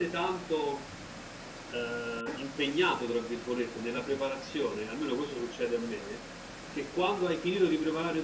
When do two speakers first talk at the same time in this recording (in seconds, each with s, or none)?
none